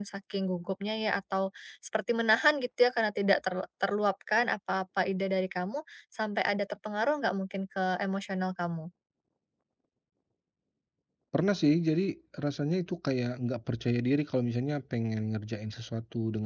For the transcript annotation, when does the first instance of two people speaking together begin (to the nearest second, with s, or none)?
none